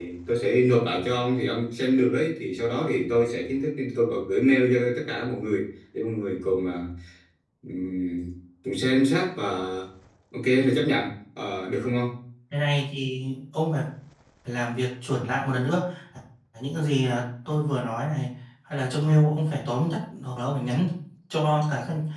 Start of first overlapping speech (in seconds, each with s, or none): none